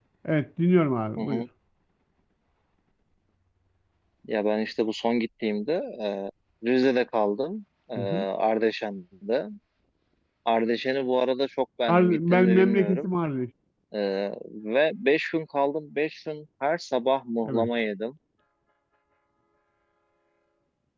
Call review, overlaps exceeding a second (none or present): present